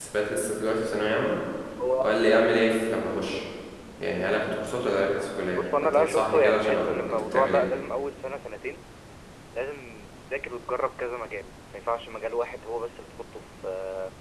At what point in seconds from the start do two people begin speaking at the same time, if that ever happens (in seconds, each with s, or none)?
5.5 s